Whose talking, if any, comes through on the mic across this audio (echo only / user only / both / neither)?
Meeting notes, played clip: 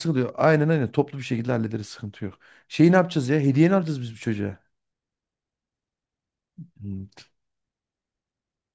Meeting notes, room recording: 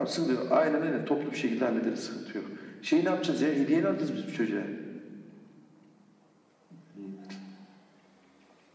echo only